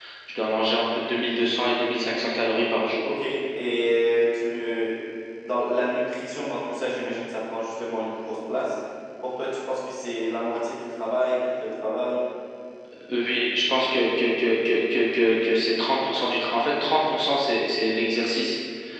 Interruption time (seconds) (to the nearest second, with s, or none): none